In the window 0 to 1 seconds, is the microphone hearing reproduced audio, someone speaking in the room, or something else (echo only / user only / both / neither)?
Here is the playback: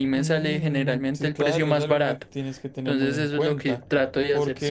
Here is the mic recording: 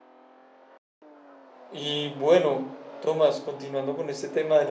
neither